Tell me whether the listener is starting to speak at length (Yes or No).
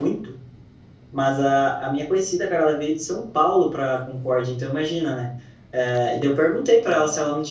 No